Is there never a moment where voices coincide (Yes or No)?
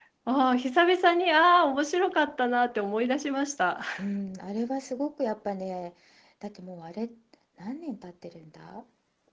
Yes